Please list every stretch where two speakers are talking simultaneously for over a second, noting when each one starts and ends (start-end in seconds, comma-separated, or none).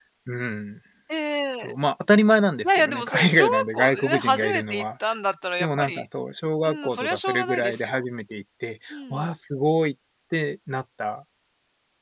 2.6-4.8, 6.6-8.0